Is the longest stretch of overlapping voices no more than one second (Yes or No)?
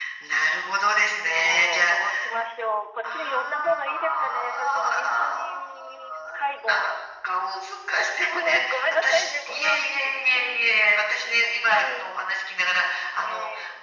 No